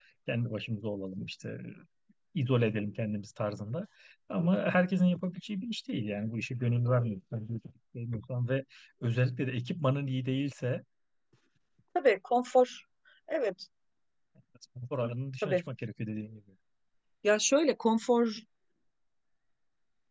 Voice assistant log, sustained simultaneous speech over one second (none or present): none